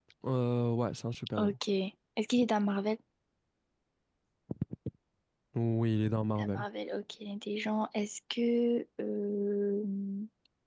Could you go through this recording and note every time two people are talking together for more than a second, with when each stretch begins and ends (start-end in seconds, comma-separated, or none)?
none